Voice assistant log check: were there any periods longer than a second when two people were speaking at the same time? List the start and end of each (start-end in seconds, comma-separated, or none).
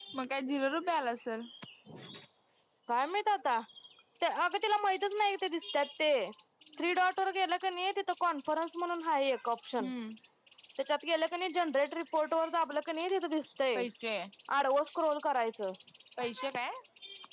none